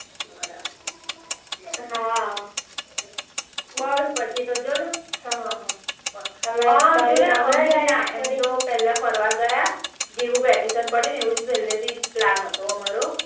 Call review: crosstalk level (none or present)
present